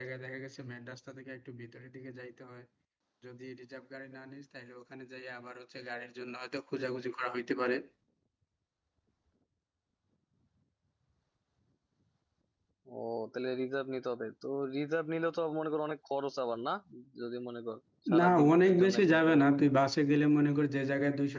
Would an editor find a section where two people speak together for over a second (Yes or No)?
Yes